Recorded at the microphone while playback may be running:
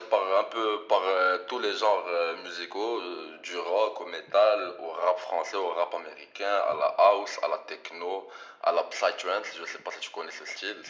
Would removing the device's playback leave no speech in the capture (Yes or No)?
Yes